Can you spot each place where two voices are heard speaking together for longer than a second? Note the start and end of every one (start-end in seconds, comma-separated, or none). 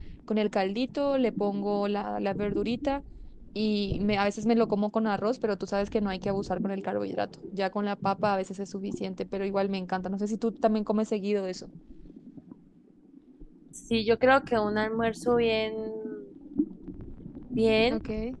none